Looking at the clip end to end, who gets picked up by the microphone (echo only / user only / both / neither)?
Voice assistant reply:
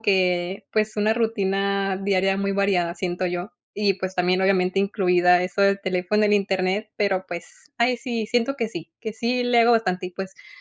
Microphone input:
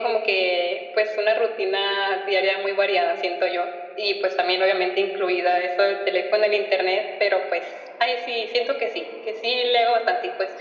echo only